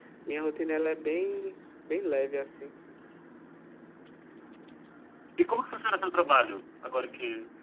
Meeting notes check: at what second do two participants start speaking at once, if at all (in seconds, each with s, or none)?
none